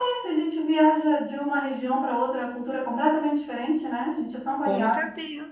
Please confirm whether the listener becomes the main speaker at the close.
Yes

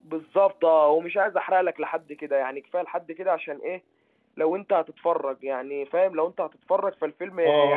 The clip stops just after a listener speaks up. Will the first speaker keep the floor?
No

